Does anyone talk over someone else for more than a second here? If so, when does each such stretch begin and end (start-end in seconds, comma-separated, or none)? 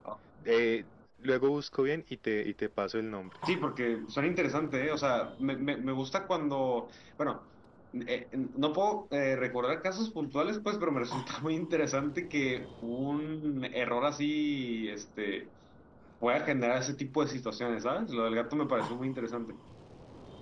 none